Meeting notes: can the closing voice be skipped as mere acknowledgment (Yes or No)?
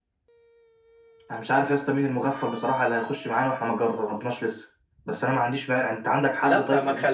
No